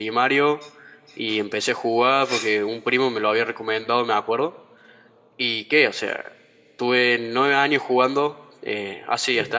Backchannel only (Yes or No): Yes